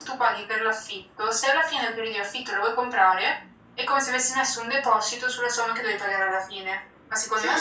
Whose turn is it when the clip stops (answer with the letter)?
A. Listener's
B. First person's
A